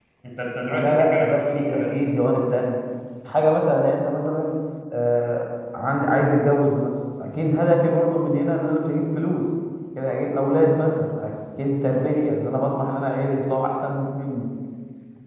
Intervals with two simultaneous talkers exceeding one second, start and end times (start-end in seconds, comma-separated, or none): 0.7-2.1